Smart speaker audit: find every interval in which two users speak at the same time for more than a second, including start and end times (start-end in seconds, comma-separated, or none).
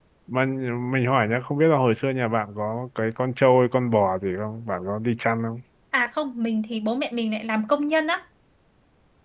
none